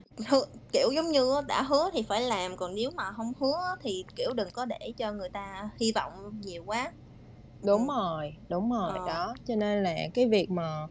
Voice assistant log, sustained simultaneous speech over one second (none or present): none